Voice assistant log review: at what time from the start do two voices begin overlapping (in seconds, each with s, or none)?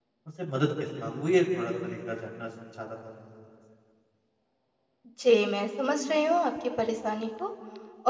none